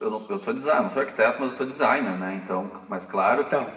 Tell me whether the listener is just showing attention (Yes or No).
Yes